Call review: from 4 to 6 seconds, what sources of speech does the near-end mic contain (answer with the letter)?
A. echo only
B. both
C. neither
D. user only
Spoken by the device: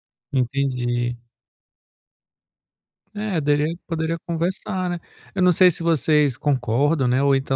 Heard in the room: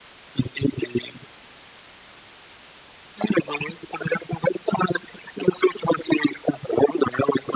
A